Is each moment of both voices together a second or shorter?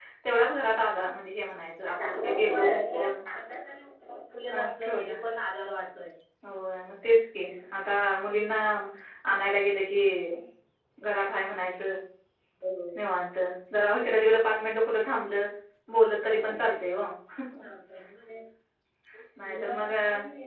No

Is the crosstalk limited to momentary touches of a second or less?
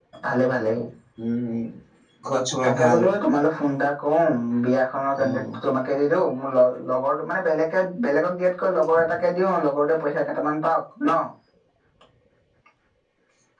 Yes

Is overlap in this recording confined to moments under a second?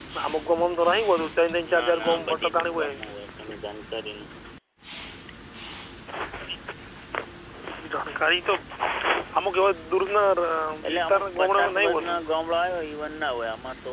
No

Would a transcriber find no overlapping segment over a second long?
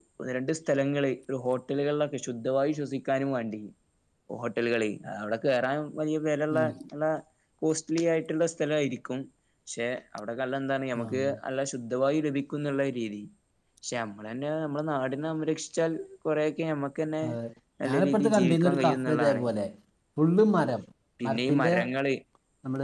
No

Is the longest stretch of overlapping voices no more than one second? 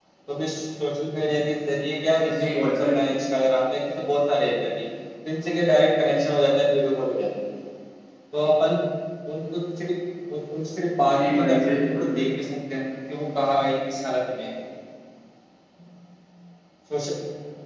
No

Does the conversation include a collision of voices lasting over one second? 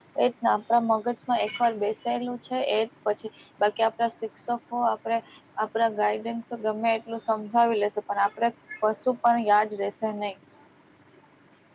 No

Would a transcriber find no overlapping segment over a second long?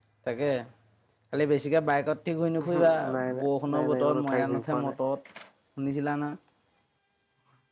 No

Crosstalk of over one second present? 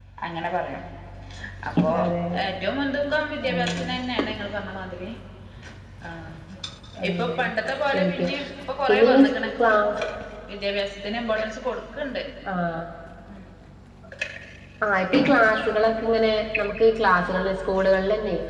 No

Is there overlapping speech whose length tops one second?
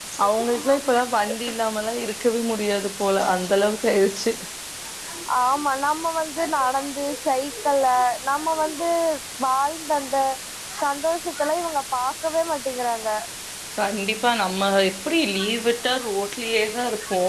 No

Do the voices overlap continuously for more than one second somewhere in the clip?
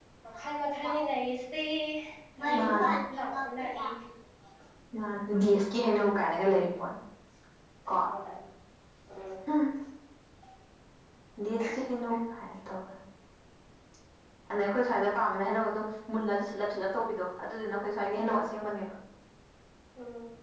Yes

